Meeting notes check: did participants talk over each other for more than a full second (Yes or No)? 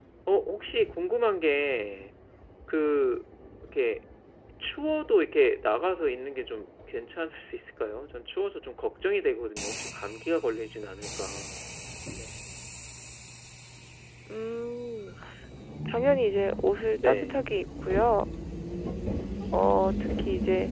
No